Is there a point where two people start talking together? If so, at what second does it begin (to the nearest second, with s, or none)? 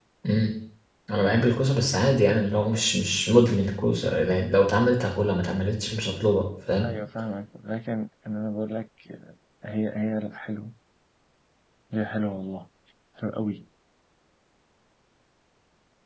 none